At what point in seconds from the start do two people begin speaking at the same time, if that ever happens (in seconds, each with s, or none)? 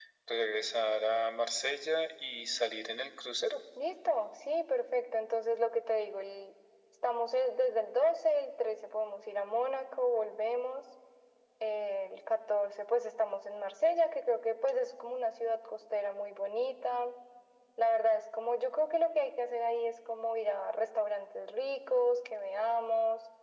none